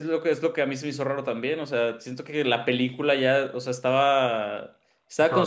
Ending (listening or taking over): listening